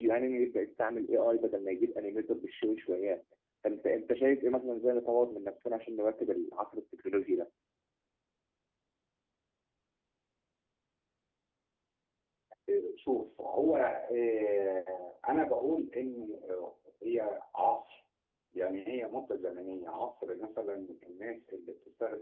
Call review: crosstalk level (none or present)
none